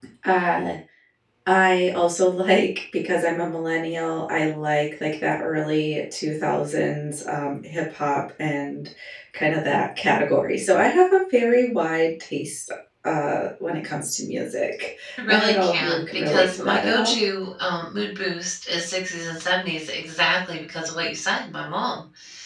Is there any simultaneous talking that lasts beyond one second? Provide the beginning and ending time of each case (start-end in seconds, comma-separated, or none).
15.3-17.1